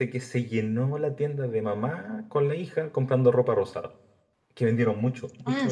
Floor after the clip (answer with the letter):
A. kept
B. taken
B